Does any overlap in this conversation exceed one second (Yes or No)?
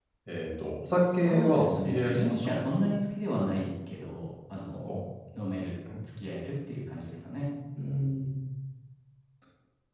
Yes